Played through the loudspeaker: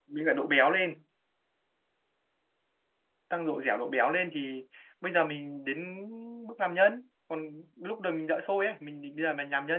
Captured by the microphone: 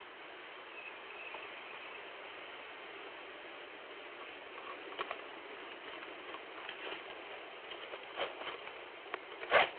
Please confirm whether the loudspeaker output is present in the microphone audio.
No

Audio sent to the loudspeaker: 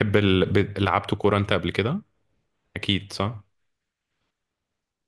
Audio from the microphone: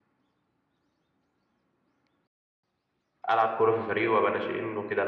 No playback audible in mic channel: Yes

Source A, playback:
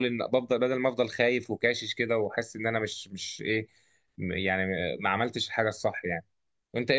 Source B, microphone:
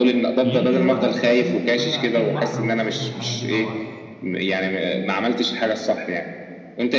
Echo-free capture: No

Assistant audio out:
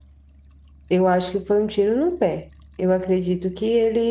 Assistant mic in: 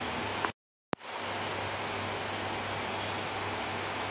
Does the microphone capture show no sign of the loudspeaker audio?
Yes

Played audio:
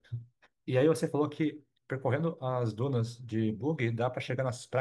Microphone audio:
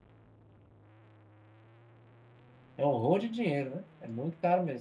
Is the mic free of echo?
Yes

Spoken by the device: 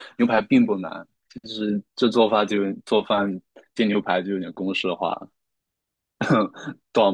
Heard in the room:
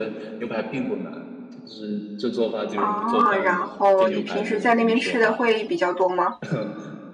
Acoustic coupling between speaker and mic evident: Yes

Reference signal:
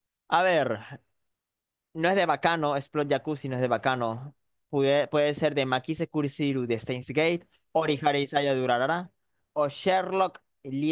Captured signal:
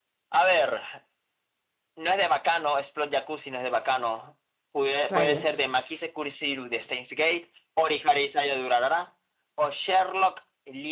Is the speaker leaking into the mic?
Yes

